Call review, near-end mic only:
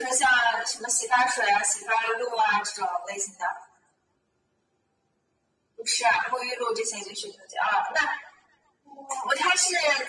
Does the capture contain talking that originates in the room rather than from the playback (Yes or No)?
No